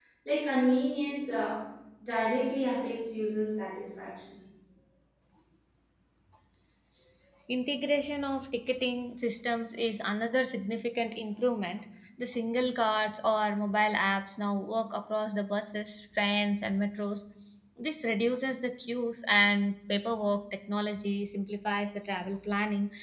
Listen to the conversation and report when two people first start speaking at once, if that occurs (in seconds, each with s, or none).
none